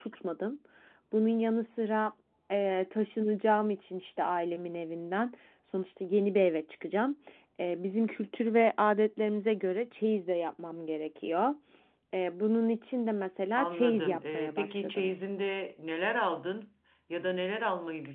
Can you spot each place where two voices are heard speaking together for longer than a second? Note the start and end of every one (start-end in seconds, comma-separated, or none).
13.6-15.1